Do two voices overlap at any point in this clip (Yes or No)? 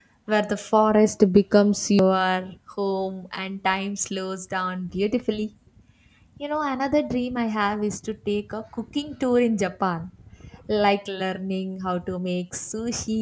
No